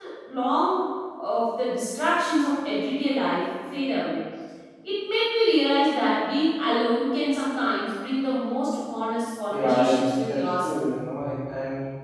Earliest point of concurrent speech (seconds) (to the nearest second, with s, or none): 10 s